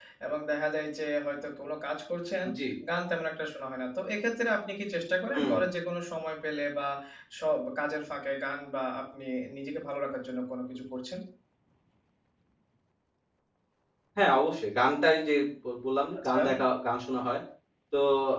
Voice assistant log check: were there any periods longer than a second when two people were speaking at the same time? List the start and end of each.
none

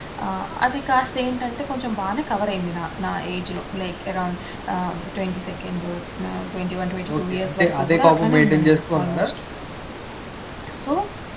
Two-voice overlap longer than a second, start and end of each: 7.1-9.2

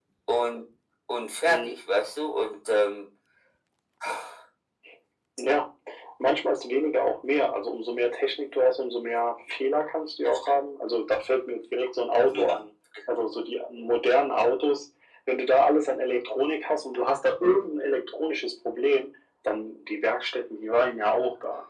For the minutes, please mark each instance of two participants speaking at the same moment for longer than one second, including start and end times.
none

